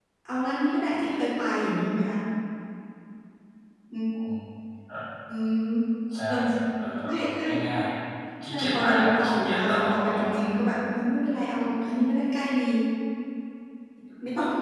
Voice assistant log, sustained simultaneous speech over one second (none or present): present